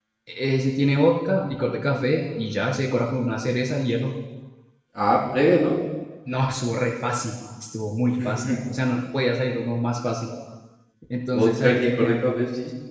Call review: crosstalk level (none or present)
present